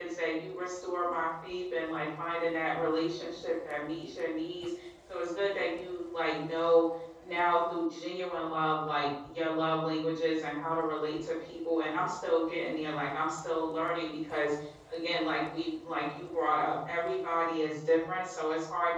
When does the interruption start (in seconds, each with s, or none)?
none